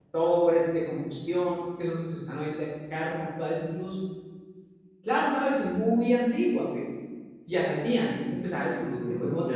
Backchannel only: No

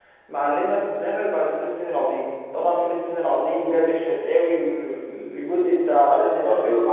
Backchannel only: No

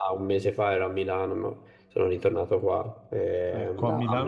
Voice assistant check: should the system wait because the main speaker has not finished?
No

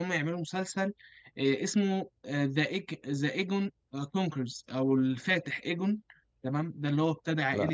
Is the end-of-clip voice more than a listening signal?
No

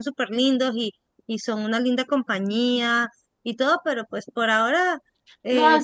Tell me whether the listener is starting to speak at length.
Yes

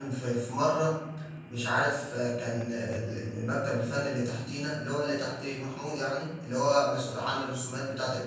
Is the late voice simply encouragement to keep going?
Yes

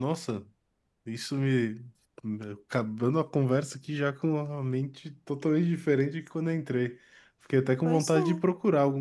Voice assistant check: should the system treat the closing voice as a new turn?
No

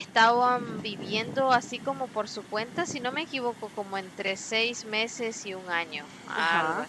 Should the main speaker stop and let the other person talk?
Yes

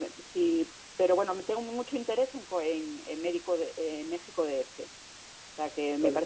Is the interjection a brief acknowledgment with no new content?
Yes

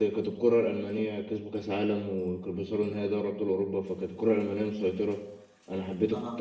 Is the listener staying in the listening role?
Yes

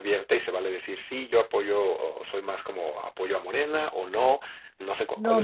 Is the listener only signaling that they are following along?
No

